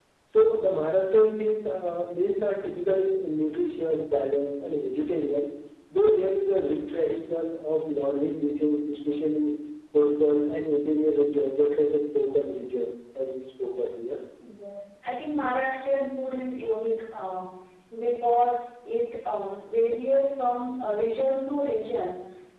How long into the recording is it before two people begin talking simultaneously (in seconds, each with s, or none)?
none